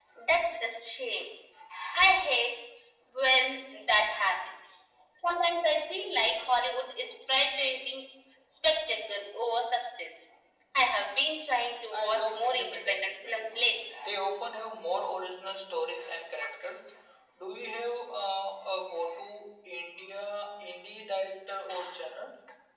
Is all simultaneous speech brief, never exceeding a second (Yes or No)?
No